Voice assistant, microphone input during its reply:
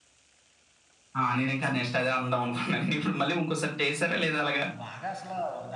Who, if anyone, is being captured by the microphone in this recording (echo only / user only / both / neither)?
both